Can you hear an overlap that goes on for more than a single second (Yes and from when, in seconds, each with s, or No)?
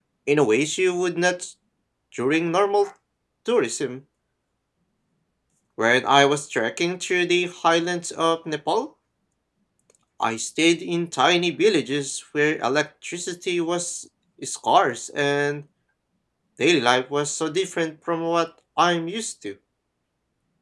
No